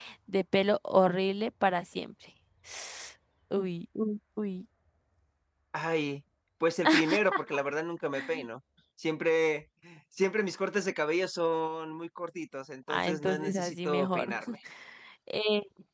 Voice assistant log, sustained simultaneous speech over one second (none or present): present